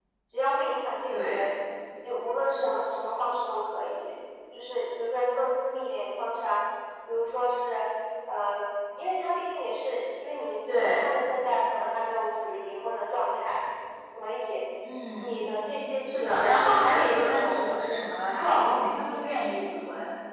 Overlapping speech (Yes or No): Yes